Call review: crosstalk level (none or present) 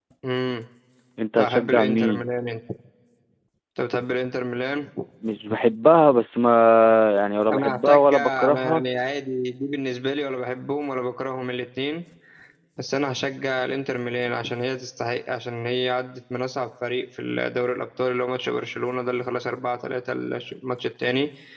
present